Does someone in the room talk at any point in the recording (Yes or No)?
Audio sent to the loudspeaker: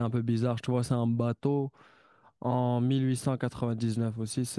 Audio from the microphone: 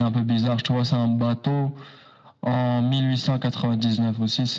No